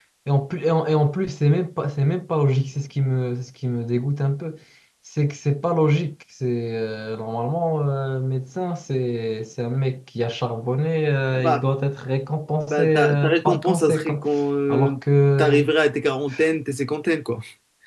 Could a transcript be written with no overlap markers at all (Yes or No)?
No